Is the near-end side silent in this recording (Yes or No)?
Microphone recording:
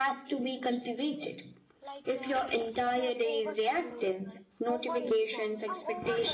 No